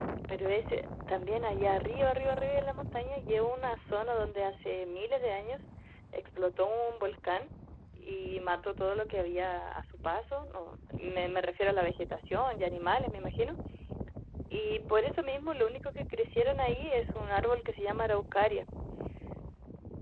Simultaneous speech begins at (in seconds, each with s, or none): none